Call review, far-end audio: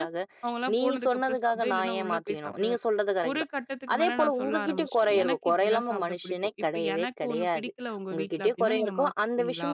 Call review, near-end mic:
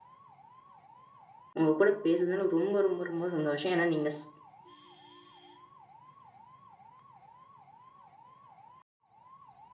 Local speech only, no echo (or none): உங்க கூட பேசுனதுல ரொம்ப, ரொம்ப, ரொம்ப சந்தோஷம். ஏன்னா, நீங்க ஸ்